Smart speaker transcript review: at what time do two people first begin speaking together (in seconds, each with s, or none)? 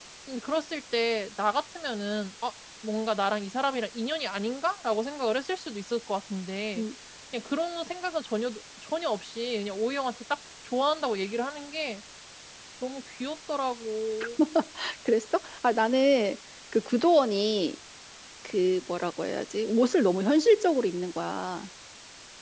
none